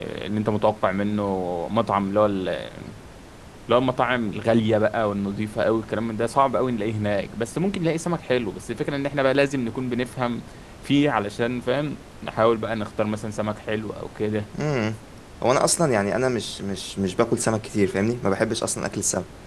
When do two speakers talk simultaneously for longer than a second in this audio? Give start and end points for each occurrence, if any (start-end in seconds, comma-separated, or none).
none